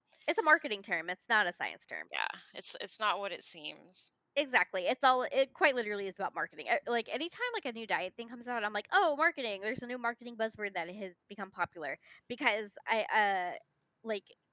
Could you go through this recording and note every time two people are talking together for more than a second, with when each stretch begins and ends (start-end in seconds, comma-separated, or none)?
none